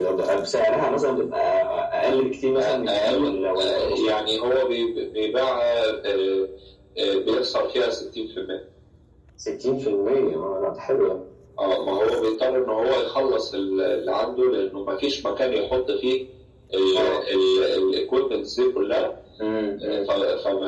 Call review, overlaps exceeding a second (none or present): present